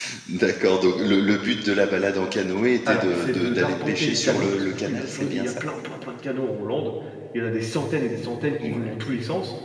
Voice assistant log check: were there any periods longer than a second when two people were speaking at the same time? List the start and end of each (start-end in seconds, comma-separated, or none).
2.9-5.6